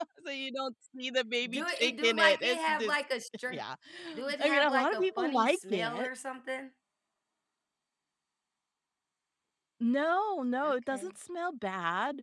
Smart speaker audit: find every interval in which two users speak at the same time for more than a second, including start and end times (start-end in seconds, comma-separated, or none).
1.5-2.9, 4.4-6.1